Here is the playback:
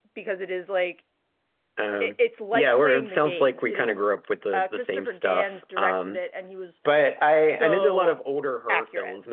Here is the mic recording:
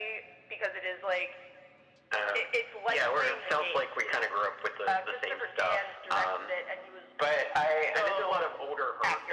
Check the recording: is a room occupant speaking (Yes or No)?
No